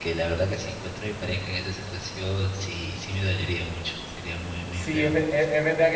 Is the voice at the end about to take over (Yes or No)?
Yes